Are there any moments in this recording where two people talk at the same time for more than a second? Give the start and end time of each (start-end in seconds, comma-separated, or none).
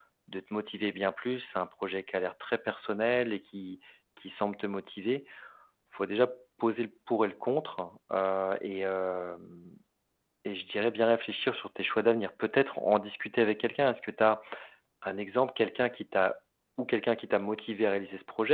none